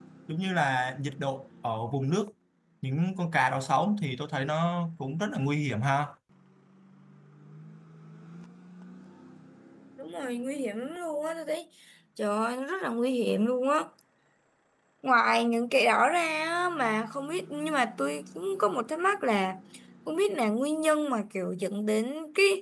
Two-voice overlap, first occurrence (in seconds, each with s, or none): none